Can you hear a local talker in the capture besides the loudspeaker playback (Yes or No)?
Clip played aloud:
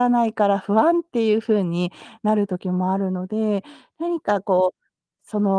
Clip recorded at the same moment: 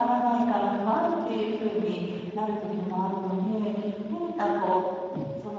No